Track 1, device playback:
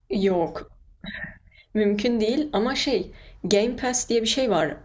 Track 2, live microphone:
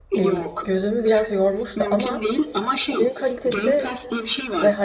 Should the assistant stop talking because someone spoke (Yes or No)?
Yes